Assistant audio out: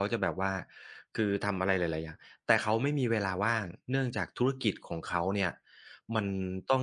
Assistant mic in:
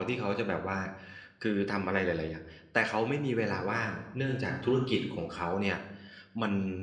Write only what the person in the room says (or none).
none